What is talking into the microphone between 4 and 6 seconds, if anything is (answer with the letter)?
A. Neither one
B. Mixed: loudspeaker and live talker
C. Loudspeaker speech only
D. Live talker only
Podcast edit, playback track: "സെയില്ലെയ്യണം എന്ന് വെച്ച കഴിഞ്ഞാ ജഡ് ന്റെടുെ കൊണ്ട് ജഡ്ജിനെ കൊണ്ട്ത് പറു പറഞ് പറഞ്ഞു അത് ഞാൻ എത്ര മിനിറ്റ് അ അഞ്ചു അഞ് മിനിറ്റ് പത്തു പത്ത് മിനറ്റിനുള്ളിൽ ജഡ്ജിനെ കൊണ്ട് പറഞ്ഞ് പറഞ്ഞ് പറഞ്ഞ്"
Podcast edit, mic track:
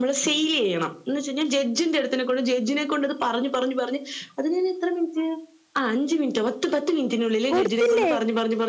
C